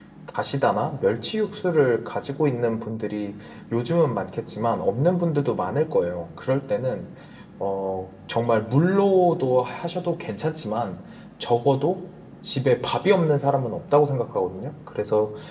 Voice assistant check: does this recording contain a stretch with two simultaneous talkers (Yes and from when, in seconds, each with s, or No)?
No